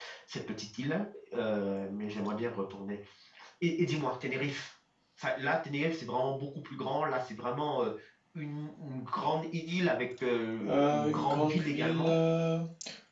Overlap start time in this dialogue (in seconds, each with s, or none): 10.6 s